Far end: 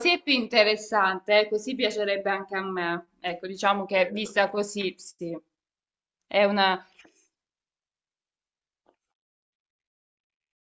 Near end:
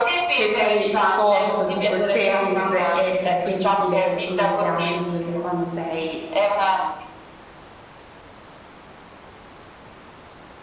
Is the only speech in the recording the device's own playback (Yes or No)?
No